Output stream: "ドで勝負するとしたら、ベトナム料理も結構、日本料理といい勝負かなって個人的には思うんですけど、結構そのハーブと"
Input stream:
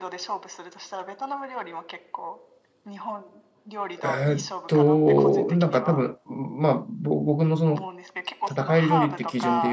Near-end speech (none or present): present